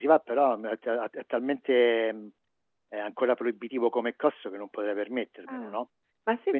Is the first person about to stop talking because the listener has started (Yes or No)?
Yes